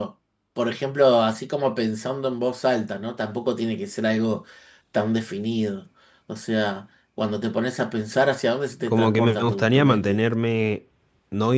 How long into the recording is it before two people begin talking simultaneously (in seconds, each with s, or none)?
8.9 s